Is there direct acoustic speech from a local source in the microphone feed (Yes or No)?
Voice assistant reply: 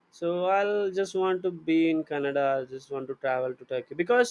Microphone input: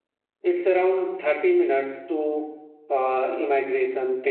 Yes